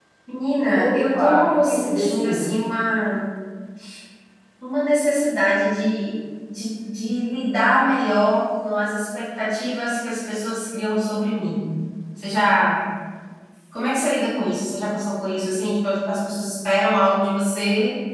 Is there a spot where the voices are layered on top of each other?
Yes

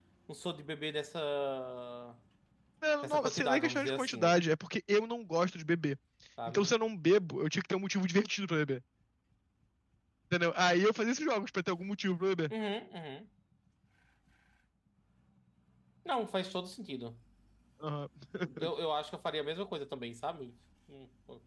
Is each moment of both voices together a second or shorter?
No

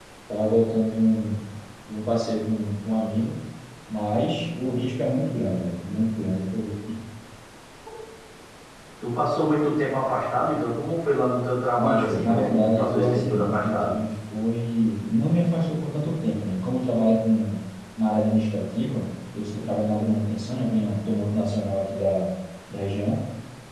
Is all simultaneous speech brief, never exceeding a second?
No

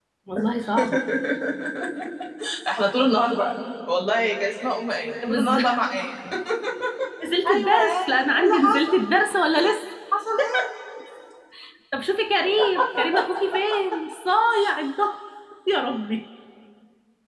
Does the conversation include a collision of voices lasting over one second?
Yes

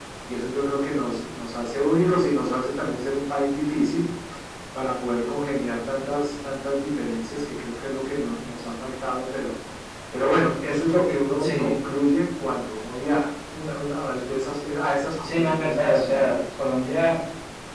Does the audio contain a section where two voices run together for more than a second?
Yes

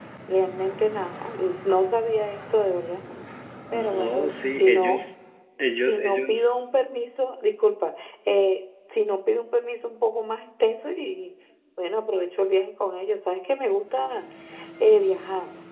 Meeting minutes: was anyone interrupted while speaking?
Yes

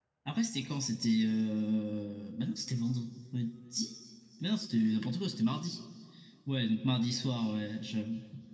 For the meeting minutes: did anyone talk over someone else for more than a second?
No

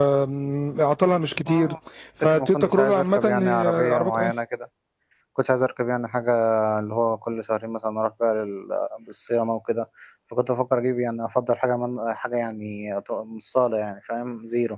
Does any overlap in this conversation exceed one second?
Yes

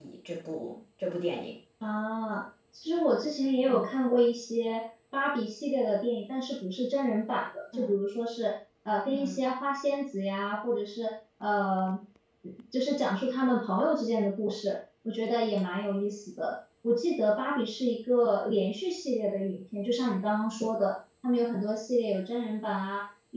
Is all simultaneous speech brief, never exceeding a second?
Yes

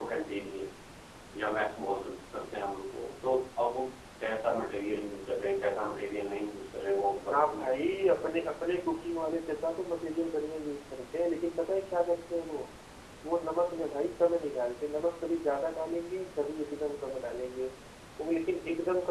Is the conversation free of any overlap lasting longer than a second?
Yes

